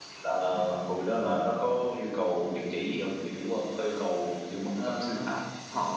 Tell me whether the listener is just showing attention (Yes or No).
No